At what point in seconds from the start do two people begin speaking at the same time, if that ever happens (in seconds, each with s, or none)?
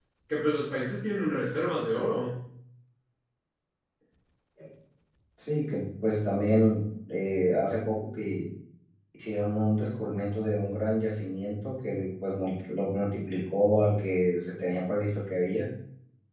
none